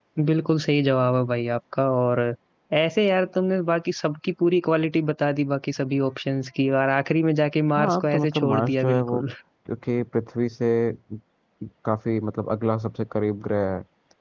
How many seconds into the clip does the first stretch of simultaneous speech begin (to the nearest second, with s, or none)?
8 s